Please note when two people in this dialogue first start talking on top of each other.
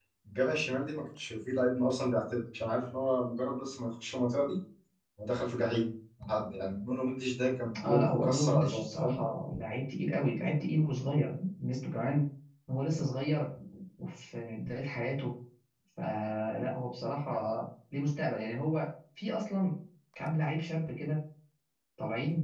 8 s

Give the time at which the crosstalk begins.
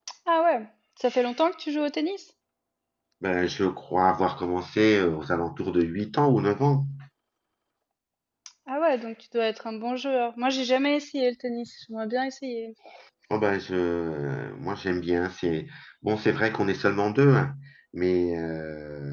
none

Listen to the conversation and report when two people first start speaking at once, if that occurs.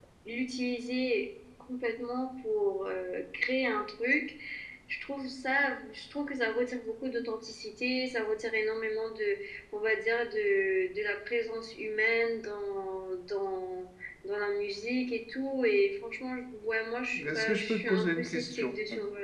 17 s

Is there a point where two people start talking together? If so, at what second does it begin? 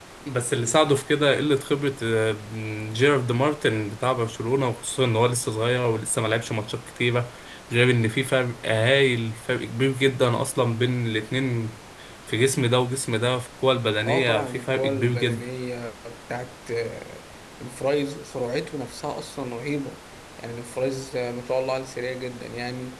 14 s

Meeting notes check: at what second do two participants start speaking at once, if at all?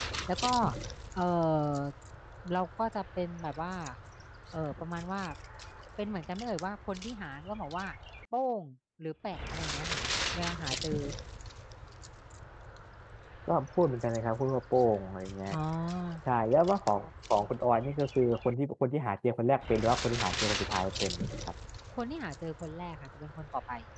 none

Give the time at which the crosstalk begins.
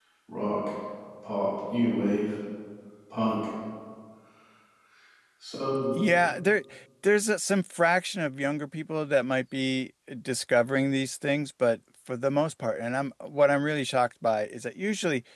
none

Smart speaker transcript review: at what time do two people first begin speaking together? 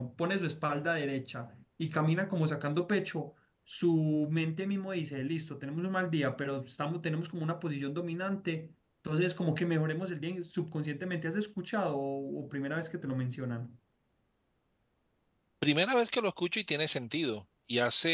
none

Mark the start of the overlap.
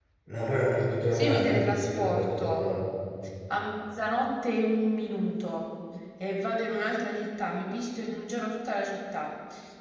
1 s

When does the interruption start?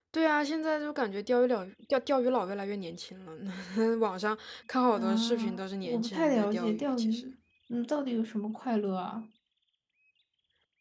5 s

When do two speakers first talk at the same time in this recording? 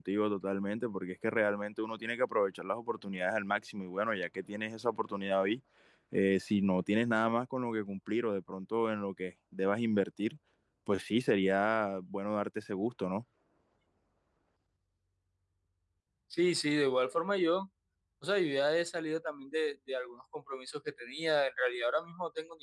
none

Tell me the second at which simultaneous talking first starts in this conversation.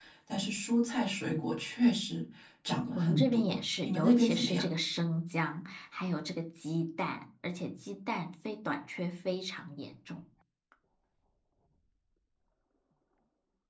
3 s

